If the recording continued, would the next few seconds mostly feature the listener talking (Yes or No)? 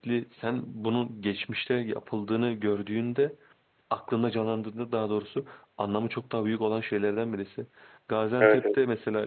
No